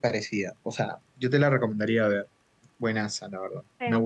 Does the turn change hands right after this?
Yes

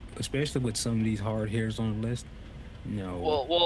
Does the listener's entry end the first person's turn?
Yes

